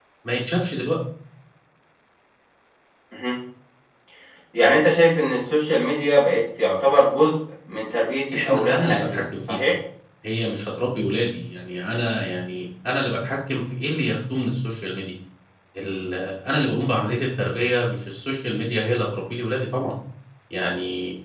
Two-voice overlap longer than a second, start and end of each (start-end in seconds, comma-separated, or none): 8.3-9.6